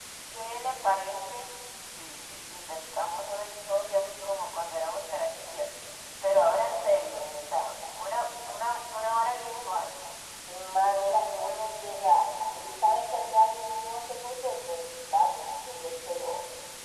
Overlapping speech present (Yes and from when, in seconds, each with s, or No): No